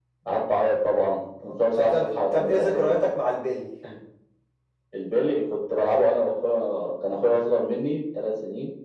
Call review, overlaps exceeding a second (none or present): present